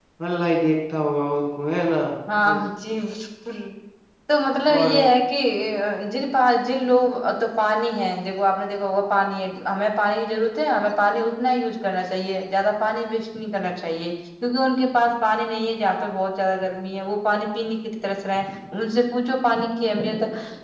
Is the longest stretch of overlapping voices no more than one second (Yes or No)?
Yes